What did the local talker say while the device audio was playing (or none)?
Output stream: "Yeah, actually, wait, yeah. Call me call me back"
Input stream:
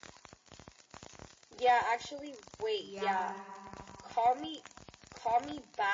Yeah.